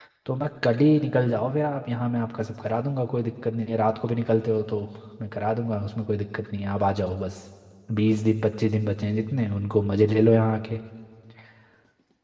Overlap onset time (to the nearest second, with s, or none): none